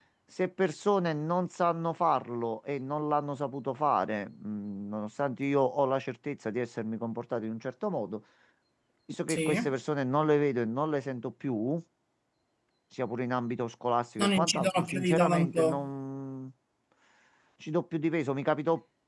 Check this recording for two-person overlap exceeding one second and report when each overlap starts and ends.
14.2-15.9

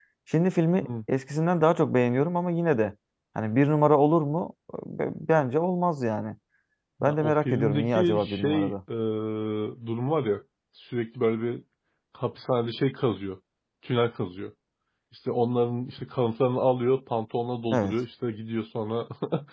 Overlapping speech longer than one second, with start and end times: 7.0-8.8

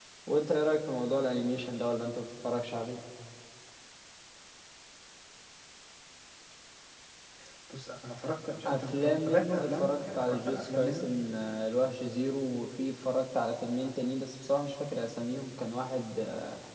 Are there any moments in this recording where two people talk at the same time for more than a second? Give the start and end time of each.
8.7-11.1

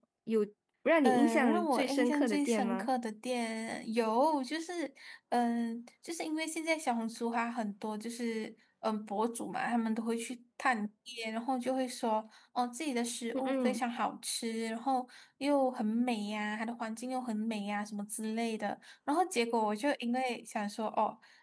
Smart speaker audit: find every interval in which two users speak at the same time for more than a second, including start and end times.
1.0-2.9

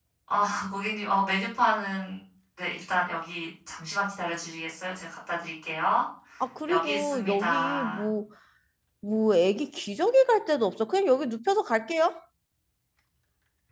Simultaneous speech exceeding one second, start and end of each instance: 6.7-8.0

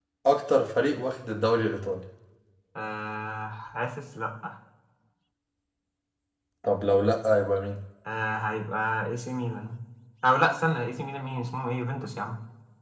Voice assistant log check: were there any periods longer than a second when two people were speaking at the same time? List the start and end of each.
none

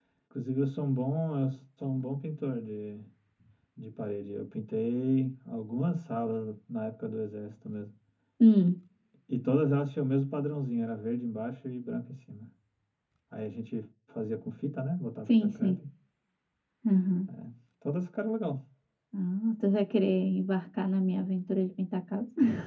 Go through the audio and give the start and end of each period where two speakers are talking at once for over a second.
none

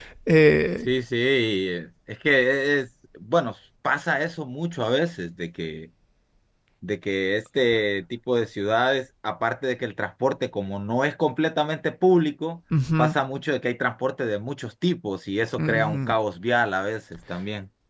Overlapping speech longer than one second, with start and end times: none

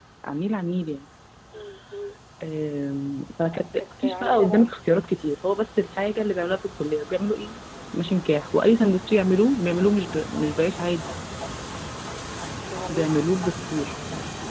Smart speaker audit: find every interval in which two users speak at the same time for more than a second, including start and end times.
3.4-4.6

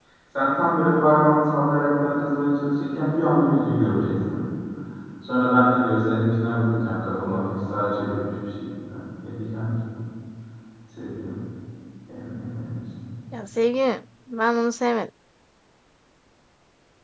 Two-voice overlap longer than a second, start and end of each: none

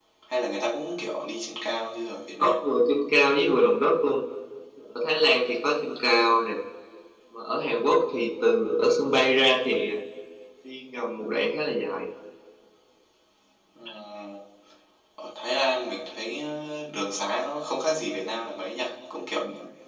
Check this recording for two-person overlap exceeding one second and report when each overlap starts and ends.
none

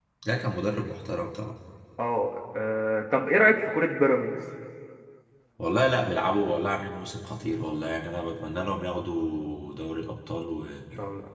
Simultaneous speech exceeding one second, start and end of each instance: none

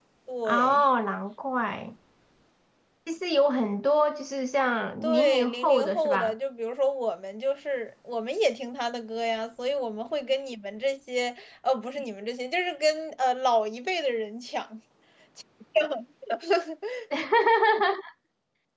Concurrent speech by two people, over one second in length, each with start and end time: 5.0-6.3

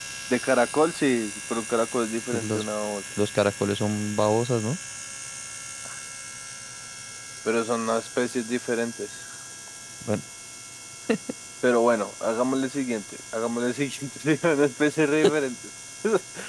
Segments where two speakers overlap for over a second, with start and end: none

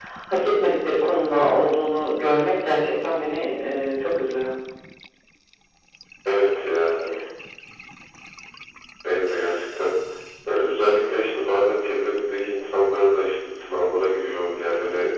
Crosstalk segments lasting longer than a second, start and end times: none

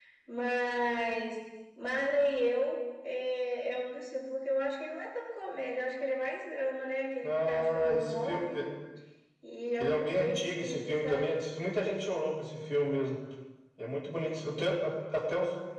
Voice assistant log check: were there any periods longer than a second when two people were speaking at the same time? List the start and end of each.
7.2-8.6, 9.8-11.3

